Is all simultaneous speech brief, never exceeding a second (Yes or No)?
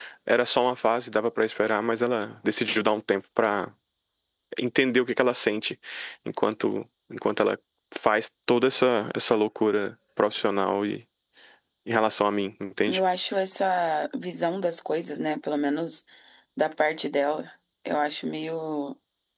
Yes